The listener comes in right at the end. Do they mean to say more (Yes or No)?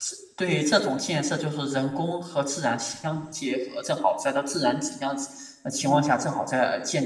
No